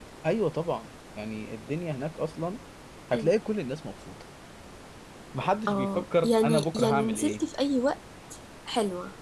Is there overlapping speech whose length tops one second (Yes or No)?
Yes